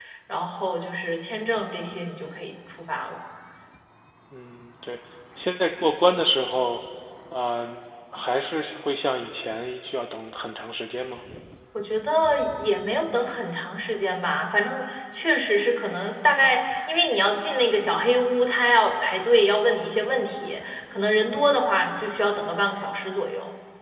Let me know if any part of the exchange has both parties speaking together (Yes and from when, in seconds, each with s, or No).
No